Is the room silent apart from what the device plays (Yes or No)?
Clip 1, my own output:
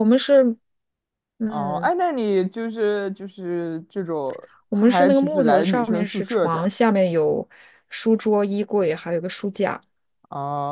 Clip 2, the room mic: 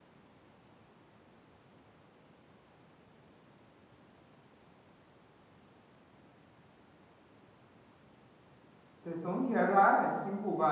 No